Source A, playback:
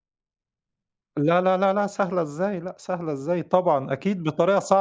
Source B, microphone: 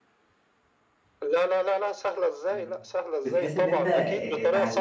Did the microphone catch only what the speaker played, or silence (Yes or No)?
No